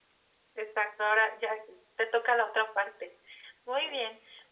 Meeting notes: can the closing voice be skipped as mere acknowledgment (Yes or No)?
Yes